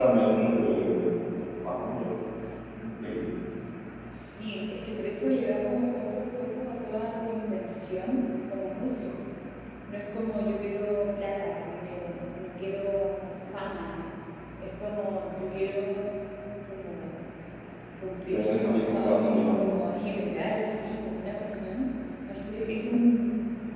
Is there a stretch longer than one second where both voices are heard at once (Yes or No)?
Yes